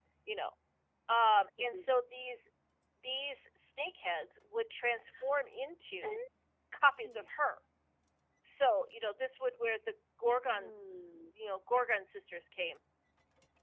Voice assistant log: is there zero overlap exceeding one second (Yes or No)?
Yes